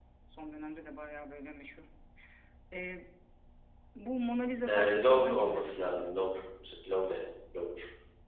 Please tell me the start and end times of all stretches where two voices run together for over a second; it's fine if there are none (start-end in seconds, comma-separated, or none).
4.7-6.3